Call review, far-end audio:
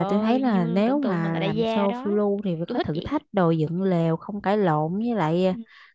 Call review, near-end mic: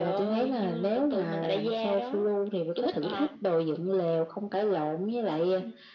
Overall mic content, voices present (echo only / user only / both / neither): both